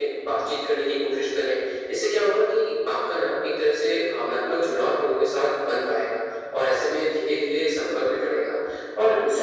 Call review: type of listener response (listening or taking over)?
listening